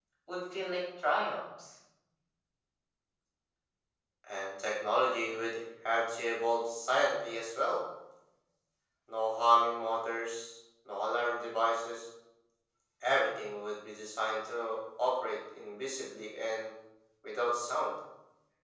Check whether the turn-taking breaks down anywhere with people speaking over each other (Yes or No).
No